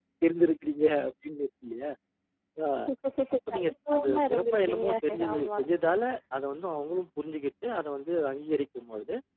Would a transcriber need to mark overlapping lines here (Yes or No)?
Yes